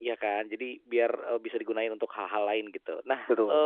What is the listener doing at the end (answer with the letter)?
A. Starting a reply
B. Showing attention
B